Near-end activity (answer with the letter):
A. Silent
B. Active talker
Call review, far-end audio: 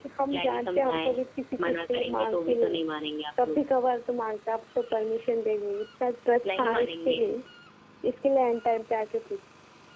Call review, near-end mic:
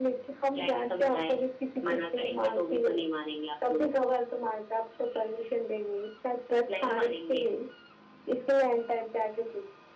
A